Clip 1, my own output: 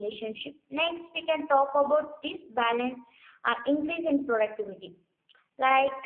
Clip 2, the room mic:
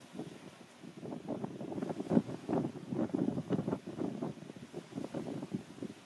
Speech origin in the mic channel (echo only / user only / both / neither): neither